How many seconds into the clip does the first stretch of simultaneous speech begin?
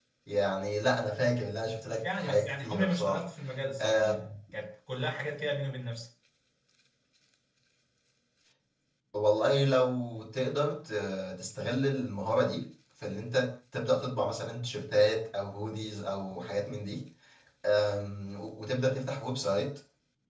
2 s

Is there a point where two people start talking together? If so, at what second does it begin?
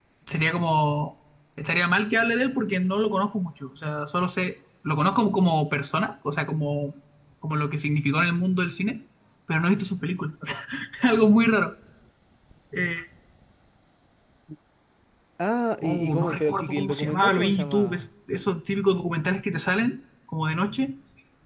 16 s

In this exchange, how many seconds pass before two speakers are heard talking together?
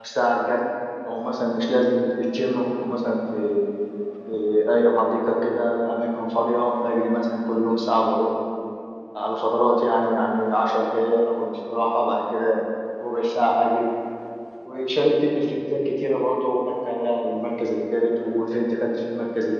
none

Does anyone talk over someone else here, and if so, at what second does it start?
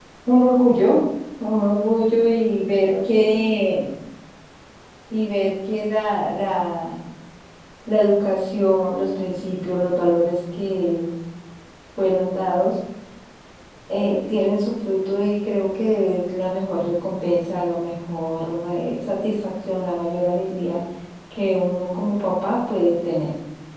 none

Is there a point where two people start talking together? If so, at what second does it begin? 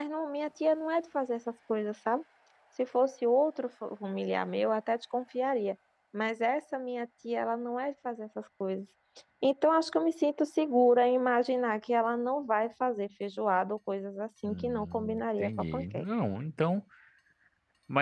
14 s

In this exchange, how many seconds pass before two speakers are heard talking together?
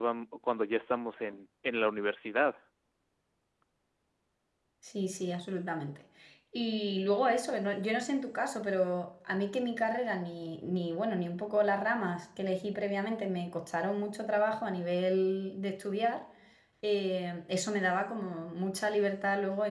none

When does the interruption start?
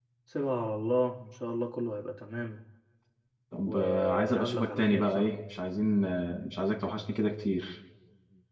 4 s

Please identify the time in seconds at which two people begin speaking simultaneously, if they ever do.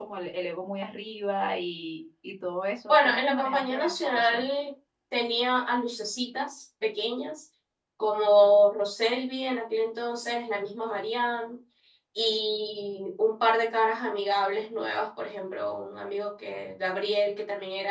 3 s

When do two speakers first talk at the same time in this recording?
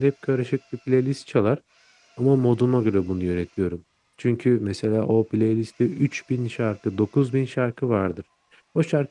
none

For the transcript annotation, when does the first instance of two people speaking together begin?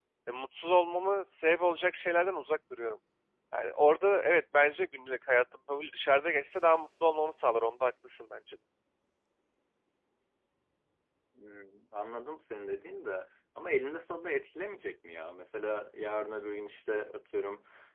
none

